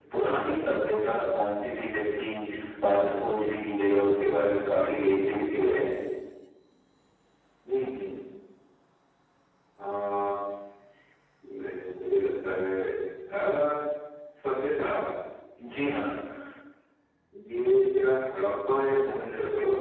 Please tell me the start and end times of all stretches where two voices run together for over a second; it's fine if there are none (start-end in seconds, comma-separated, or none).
none